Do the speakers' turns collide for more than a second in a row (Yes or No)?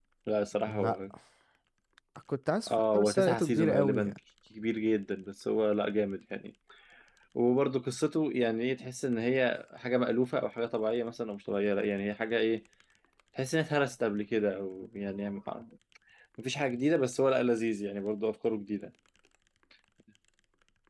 Yes